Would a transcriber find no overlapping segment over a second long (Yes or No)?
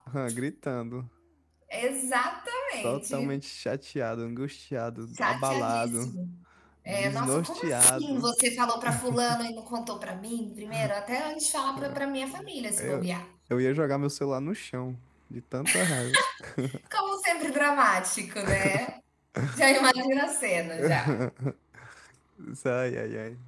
No